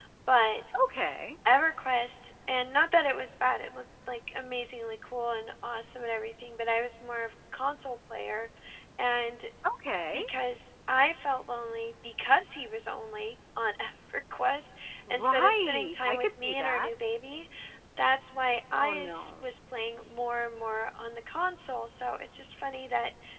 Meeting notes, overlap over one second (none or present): present